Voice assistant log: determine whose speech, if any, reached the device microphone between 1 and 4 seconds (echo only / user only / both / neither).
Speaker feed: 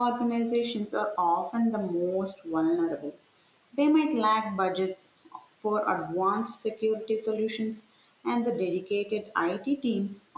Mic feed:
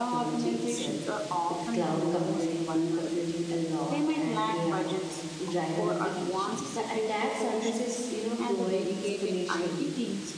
both